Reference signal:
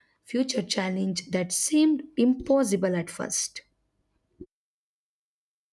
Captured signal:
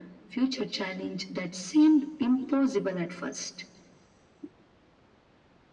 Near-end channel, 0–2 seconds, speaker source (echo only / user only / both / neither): echo only